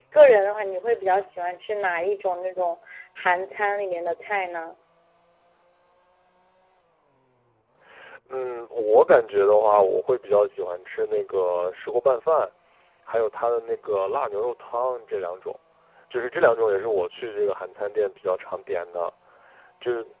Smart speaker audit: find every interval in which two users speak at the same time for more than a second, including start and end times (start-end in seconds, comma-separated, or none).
none